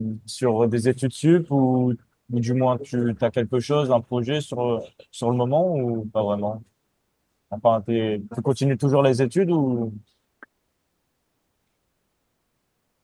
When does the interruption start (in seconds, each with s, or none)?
none